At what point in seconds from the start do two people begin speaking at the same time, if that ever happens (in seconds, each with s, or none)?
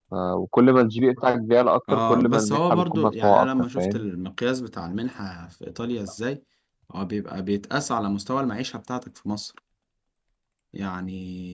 1.9 s